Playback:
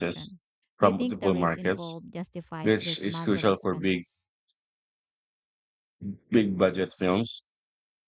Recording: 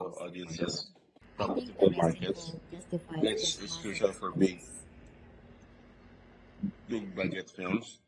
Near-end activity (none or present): none